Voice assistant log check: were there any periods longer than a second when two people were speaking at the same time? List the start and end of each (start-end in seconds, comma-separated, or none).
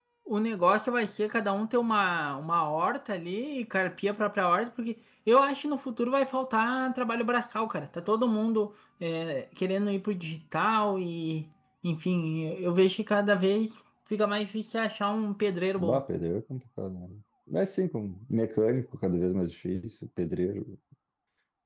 none